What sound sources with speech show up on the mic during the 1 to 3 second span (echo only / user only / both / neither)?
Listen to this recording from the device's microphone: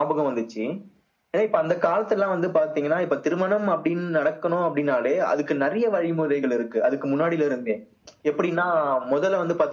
echo only